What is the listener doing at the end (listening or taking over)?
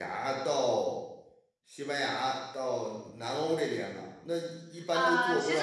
taking over